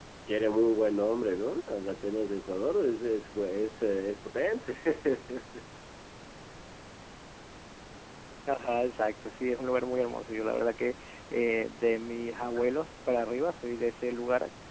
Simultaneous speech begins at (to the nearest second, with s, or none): none